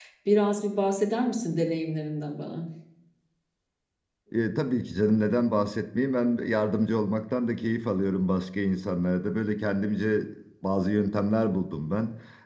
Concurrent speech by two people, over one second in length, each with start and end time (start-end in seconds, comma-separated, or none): none